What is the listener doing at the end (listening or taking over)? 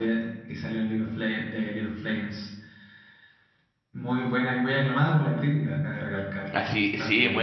taking over